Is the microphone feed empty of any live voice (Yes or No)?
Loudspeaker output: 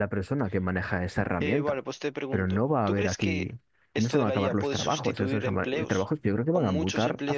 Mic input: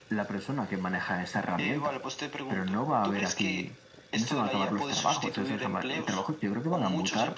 Yes